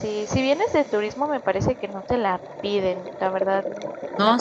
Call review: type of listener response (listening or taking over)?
taking over